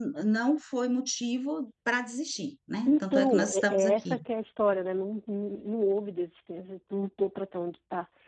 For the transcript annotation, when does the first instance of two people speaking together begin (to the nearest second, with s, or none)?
3 s